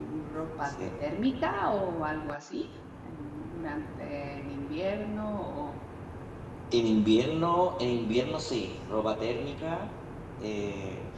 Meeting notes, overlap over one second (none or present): none